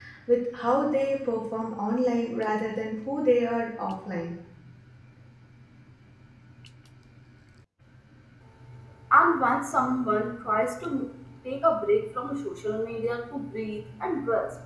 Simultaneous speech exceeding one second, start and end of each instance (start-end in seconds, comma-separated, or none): none